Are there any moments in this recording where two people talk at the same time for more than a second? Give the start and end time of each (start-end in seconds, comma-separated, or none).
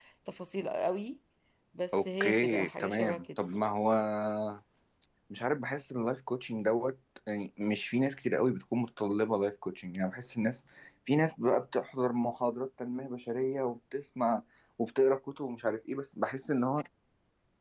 1.9-3.2